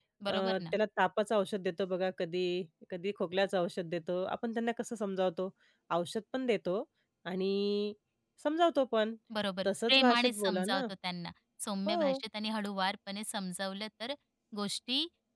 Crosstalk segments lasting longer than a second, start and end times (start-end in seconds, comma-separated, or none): 9.7-10.9